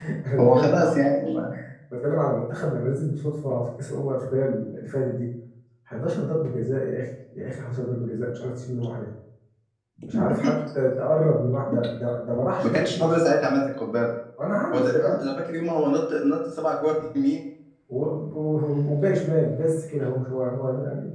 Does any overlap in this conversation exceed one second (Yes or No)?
No